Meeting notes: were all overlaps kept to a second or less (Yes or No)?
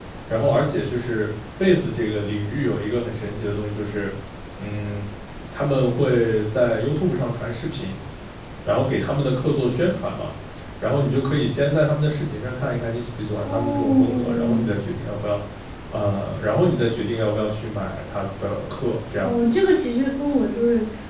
No